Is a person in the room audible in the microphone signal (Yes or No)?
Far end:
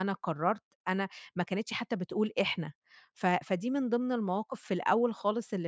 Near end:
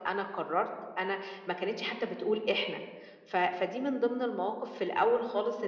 No